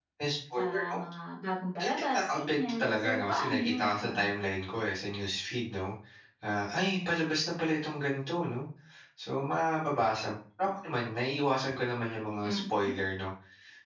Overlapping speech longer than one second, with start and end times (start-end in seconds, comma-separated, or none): 1.8-4.3